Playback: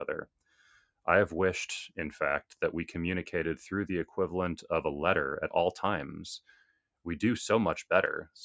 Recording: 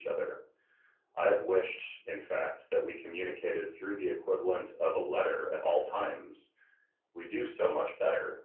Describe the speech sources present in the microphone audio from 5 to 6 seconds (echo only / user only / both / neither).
echo only